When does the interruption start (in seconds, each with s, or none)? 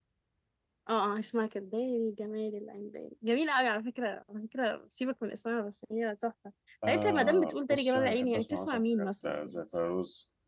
6.9 s